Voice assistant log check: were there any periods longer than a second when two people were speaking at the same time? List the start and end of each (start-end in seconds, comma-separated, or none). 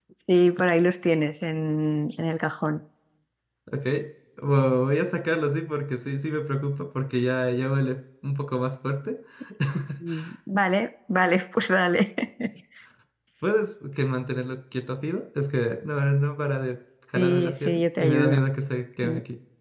17.1-18.4